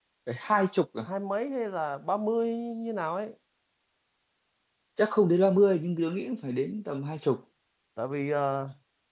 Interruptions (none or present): none